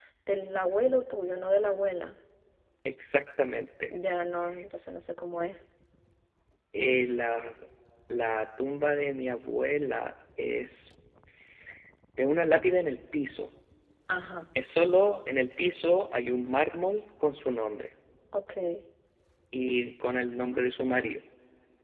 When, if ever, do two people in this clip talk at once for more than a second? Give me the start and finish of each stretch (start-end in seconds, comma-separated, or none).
none